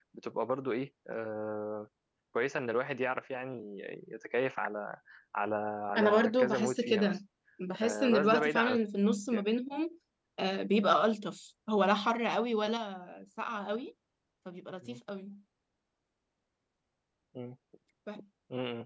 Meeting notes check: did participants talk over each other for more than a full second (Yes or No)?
Yes